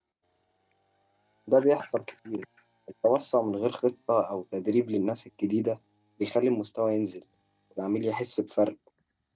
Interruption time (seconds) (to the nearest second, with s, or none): none